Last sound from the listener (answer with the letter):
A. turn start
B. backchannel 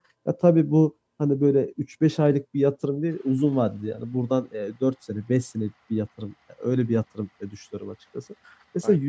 B